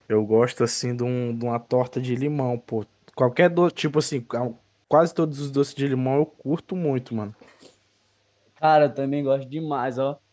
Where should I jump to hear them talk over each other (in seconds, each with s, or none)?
none